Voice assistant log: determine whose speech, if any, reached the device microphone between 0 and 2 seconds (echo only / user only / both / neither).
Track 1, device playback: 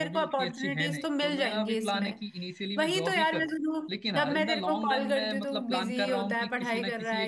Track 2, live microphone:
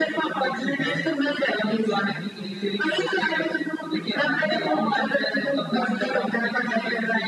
both